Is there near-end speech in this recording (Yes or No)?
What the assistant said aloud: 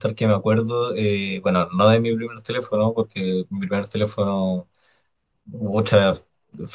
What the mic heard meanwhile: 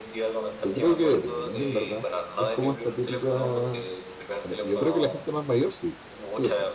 Yes